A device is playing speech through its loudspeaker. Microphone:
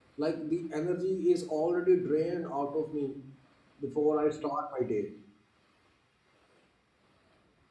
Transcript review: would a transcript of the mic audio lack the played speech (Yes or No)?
Yes